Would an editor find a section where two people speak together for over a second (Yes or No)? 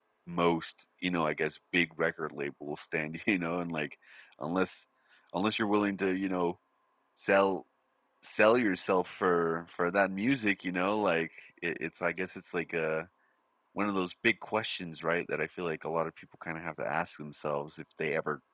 No